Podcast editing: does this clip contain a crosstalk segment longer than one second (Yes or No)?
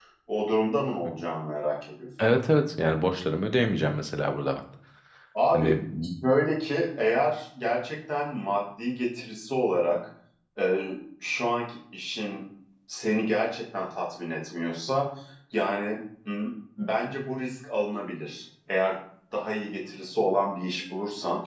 No